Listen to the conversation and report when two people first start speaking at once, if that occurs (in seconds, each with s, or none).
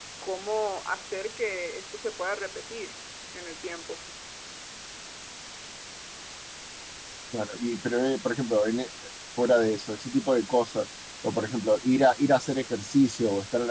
none